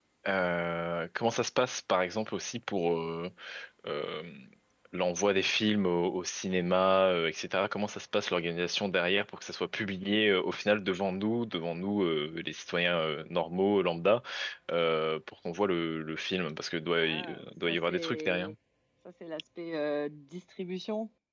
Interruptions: present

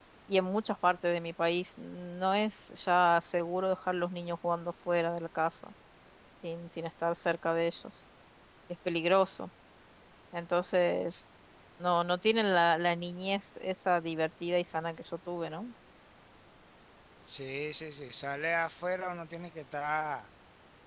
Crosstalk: none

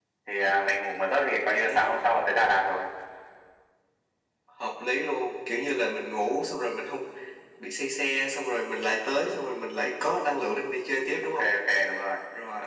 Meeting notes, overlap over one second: none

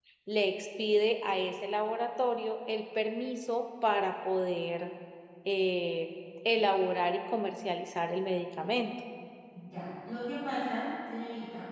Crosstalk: none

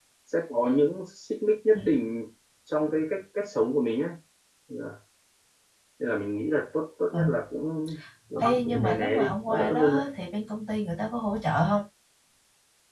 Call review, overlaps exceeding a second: present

